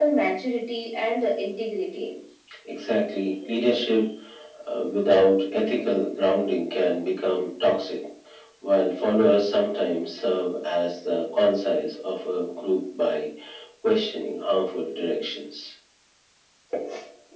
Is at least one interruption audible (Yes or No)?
No